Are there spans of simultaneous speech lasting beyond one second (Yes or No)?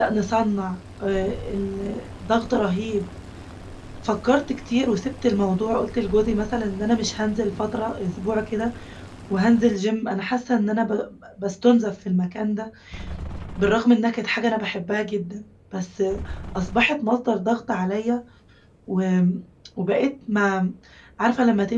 No